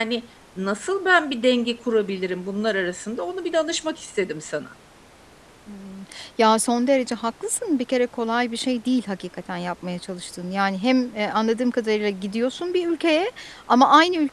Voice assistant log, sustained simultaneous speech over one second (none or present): none